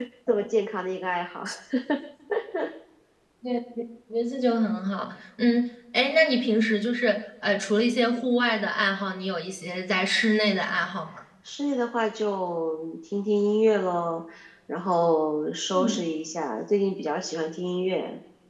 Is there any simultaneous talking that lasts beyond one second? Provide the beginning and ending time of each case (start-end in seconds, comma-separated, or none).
none